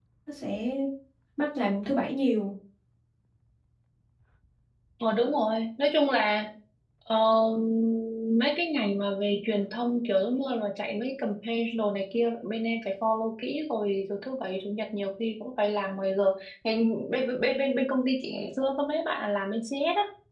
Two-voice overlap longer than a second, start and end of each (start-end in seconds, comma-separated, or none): none